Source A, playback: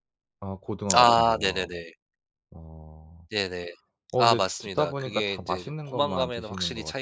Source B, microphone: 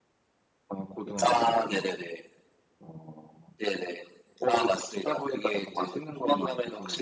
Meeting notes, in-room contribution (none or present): none